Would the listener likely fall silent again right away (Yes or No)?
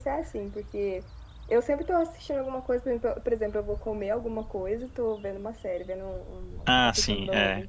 No